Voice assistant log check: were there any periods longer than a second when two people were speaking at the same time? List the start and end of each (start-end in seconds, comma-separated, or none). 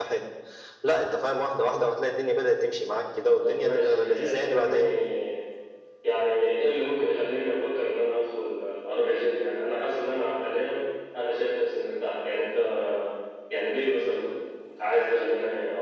3.4-4.8